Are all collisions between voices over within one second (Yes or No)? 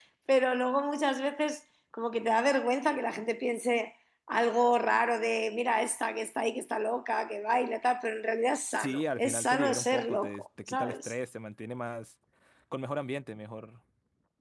No